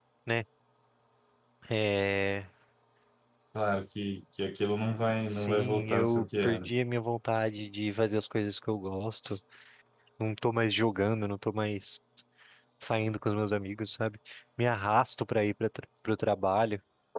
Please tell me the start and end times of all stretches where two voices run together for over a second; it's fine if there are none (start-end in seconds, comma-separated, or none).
5.3-6.7